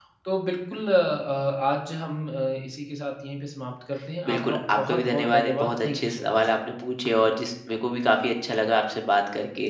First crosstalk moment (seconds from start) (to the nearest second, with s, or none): 4 s